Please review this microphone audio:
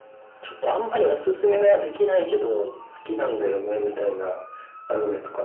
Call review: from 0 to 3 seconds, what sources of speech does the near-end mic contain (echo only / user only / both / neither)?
echo only